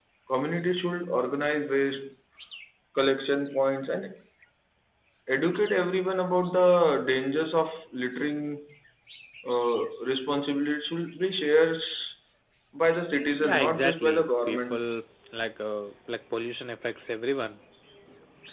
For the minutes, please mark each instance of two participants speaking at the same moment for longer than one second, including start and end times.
13.4-14.8

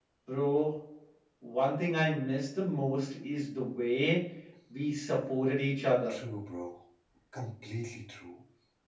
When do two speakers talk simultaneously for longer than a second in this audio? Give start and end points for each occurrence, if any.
none

